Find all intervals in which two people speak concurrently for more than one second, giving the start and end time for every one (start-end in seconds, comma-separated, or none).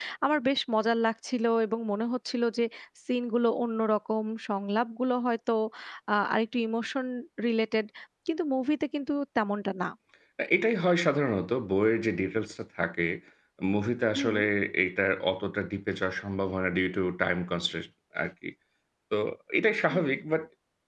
none